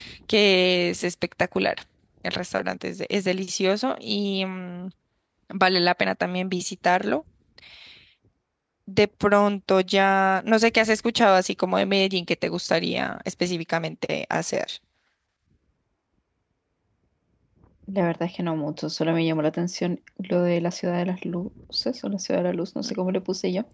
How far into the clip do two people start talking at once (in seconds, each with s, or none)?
none